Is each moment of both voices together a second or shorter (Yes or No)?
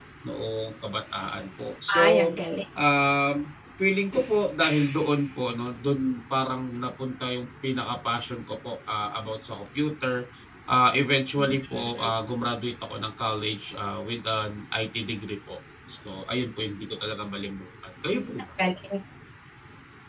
Yes